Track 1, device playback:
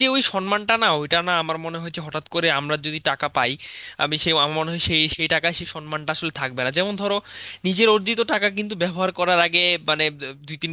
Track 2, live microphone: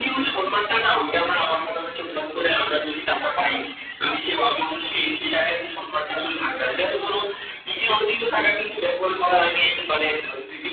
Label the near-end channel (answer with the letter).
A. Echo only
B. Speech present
A